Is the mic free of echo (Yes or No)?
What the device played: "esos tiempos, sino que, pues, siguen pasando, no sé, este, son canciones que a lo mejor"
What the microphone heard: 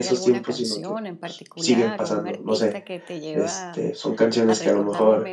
No